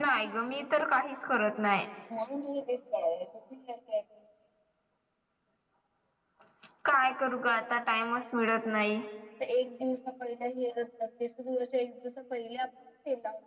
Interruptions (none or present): none